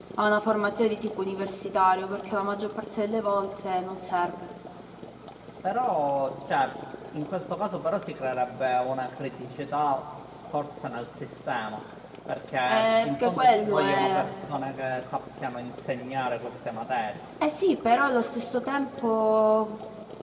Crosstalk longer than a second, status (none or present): present